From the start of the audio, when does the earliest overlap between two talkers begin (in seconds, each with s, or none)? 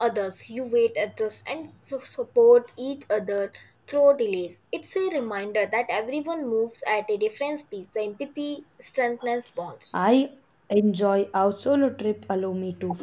none